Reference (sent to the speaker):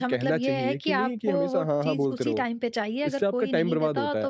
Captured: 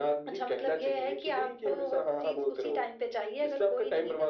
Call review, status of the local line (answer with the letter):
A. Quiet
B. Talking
A